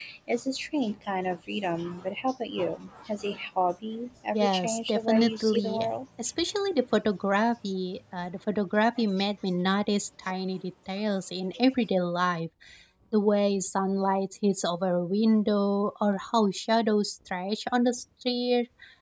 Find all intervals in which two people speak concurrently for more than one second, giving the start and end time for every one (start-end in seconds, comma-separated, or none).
4.3-5.9